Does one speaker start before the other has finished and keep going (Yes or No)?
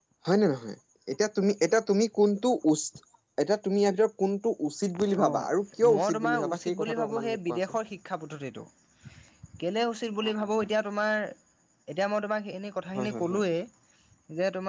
Yes